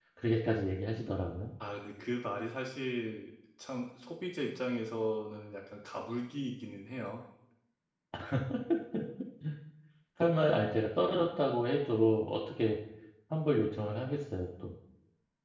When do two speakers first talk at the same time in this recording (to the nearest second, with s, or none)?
none